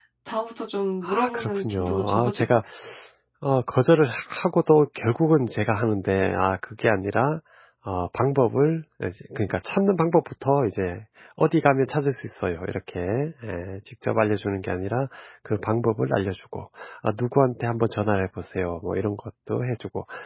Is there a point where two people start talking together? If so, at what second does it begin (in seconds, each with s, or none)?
1.0 s